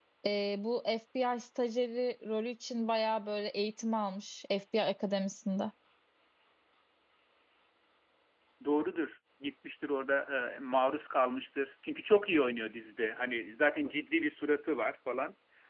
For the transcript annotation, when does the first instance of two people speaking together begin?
none

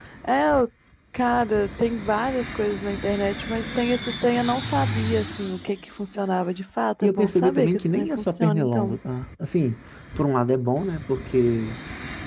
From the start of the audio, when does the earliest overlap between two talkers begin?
7.0 s

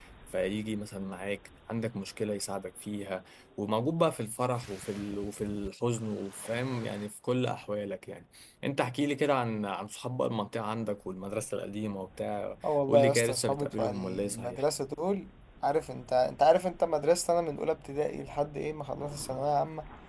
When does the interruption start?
12.6 s

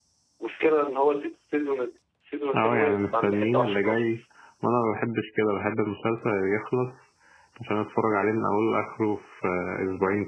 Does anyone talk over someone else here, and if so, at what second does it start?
2.5 s

